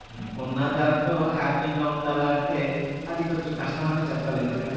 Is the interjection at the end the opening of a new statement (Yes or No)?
Yes